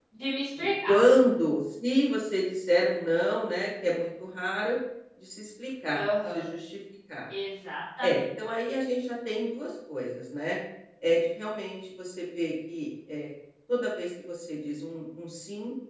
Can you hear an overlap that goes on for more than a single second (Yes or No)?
No